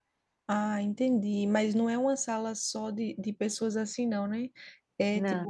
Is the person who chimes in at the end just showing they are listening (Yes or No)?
Yes